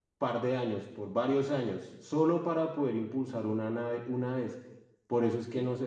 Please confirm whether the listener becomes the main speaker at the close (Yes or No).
No